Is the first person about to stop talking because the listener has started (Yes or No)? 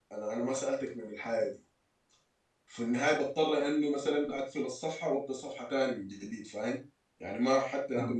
No